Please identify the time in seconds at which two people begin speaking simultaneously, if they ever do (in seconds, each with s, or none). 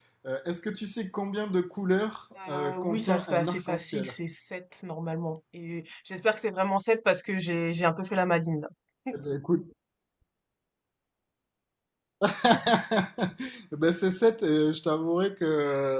2.4 s